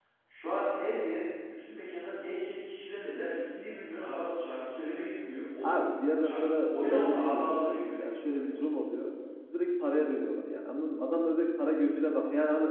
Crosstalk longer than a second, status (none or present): present